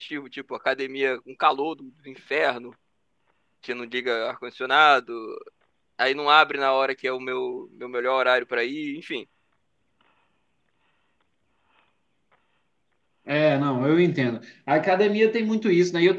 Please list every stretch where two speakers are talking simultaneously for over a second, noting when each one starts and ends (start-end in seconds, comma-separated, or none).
none